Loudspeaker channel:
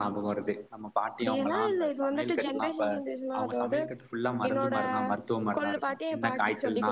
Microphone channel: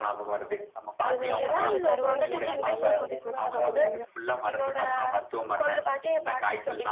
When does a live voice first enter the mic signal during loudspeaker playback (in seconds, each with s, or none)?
1.1 s